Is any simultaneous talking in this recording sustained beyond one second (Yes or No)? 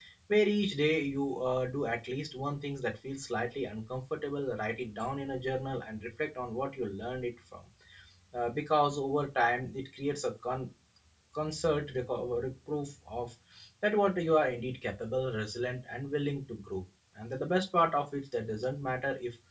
No